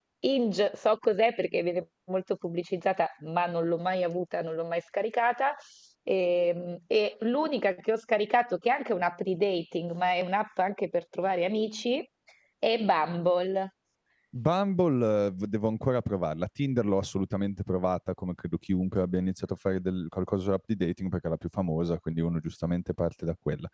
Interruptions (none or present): none